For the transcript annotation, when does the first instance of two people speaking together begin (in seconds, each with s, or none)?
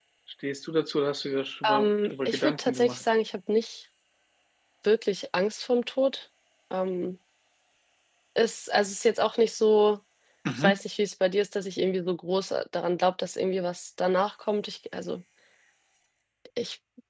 1.6 s